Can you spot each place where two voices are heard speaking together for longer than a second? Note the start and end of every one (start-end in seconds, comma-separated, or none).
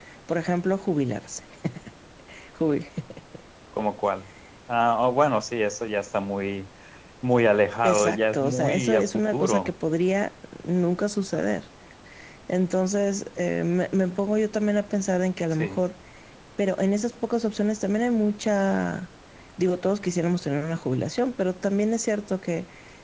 7.8-9.7